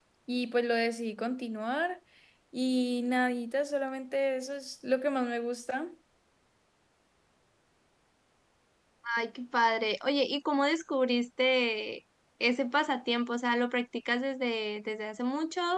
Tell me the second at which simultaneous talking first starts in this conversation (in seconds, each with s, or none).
none